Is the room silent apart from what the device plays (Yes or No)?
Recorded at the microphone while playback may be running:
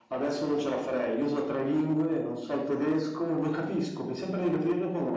Yes